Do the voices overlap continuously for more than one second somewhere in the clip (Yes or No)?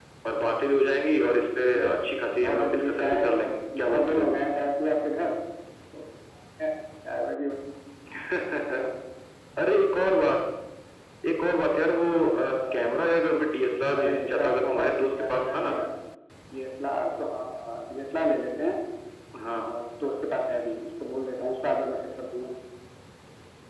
Yes